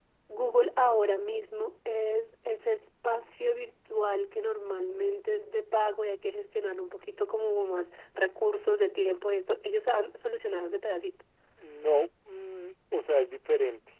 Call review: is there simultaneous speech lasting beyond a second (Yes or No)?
No